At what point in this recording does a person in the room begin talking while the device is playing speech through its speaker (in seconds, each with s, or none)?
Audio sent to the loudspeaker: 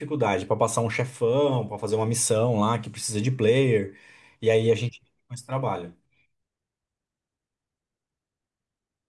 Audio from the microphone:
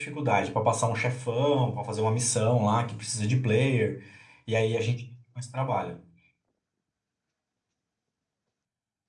none